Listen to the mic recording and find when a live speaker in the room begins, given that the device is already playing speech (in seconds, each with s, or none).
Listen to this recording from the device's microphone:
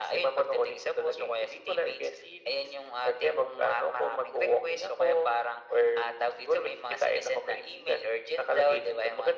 none